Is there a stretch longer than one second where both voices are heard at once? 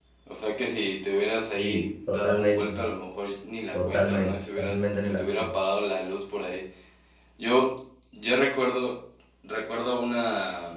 Yes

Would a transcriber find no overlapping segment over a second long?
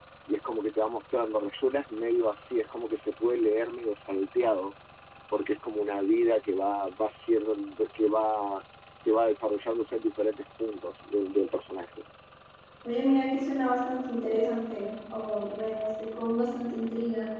Yes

